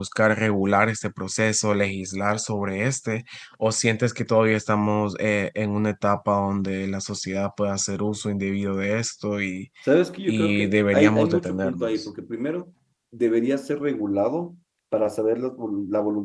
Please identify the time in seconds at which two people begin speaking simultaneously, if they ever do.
10.3 s

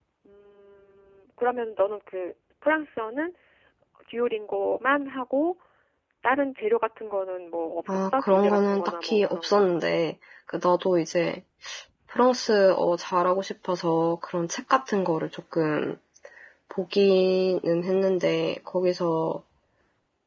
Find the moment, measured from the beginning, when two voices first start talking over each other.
7.9 s

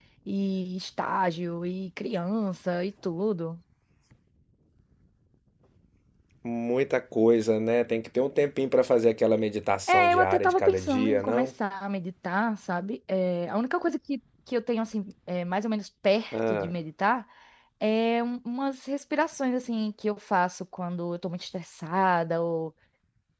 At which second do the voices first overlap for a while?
9.9 s

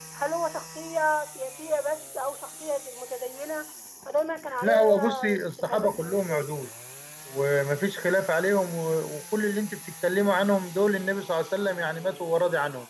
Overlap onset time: 4.6 s

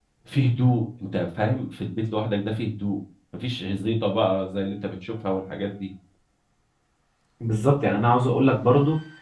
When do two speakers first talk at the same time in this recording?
none

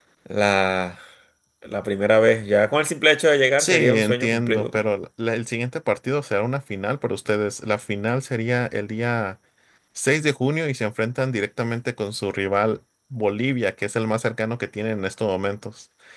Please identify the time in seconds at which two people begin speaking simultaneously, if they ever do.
3.6 s

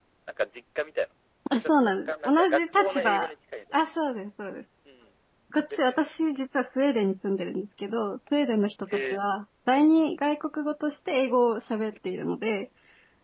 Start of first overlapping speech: 1.5 s

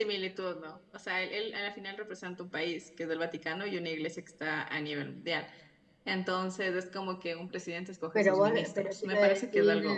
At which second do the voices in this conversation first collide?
8.2 s

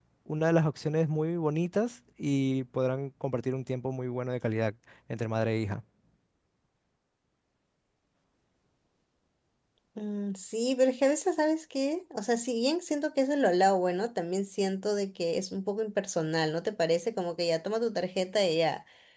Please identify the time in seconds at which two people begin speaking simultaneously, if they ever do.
none

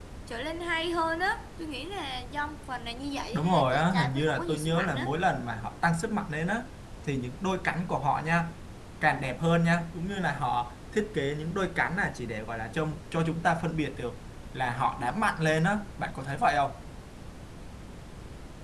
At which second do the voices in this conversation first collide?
3.3 s

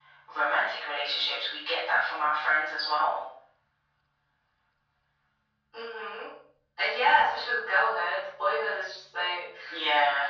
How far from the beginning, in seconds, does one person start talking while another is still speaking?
none

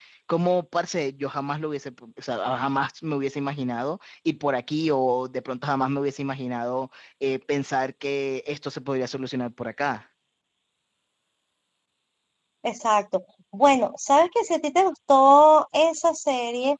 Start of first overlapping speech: none

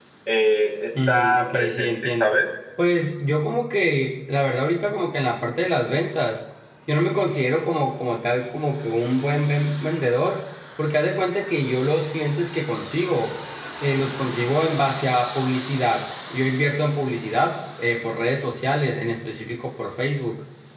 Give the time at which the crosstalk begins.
1.1 s

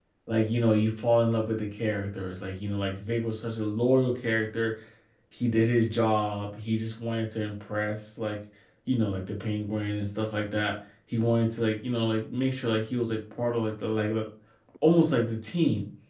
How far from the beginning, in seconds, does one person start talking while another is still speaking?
none

